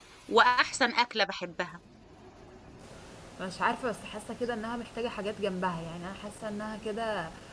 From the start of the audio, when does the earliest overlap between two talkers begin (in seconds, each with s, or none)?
none